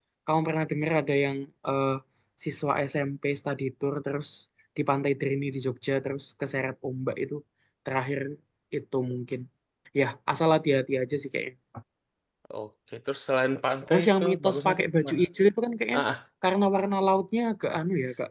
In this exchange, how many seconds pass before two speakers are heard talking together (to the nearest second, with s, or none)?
14 s